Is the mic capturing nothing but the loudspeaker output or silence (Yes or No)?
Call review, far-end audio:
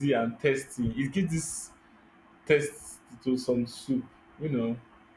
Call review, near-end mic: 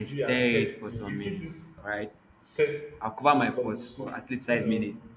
No